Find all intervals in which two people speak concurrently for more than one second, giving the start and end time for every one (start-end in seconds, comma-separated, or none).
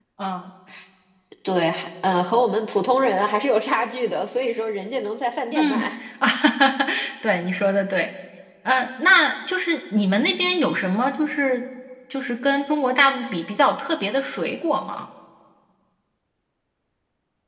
none